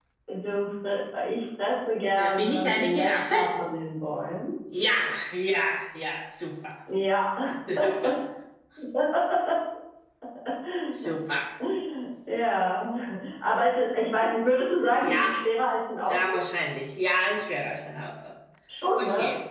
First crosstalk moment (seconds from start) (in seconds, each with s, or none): 2.1 s